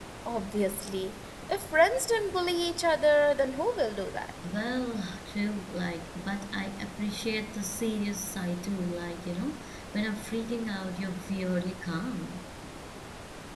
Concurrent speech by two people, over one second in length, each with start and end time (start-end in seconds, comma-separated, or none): none